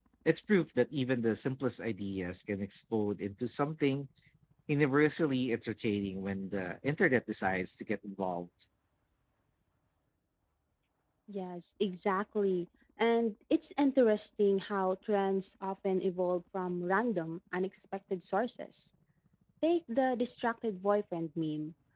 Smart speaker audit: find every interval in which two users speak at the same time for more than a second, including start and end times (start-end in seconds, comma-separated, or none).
none